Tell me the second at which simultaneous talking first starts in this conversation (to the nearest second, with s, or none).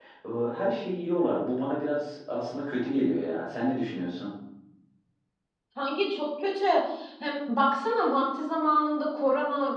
none